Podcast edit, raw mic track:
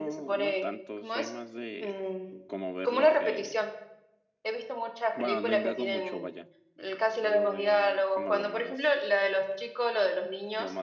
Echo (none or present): present